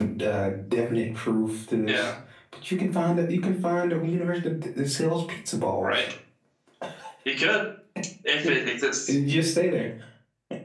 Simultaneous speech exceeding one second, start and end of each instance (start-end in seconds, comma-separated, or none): none